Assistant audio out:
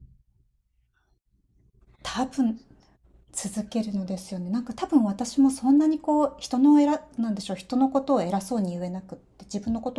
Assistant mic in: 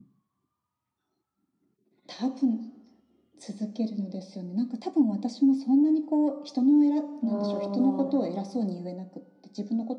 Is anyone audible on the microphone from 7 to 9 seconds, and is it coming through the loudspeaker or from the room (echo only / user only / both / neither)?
both